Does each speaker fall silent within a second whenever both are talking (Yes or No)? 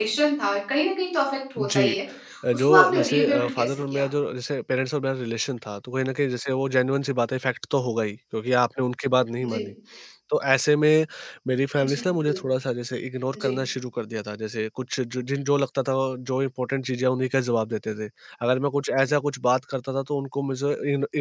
No